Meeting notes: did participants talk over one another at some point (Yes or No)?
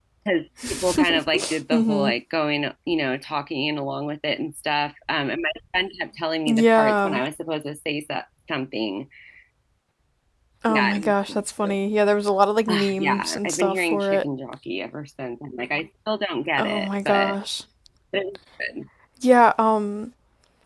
Yes